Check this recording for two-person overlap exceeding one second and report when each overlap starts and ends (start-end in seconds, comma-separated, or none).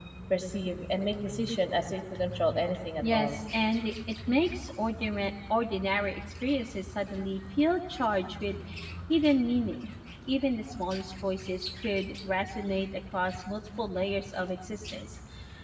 none